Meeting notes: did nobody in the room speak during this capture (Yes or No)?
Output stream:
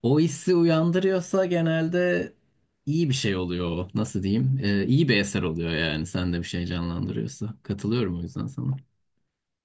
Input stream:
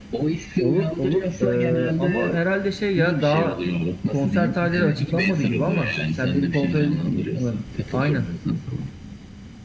No